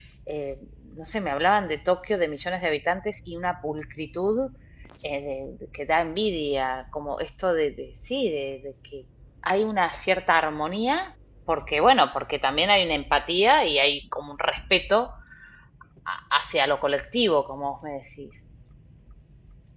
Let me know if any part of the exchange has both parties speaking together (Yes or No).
No